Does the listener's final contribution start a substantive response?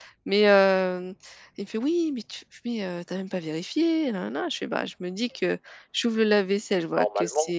No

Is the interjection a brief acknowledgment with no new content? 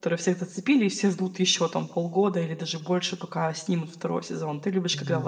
No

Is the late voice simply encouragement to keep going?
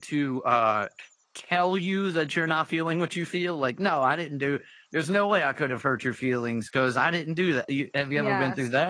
No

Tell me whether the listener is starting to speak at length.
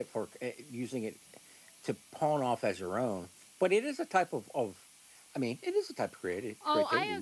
Yes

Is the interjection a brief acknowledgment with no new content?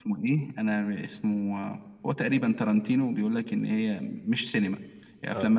Yes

